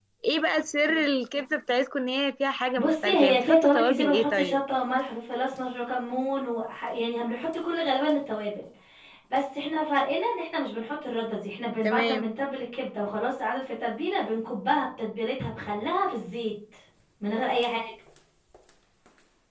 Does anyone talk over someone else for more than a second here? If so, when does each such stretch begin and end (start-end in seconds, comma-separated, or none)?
2.8-4.6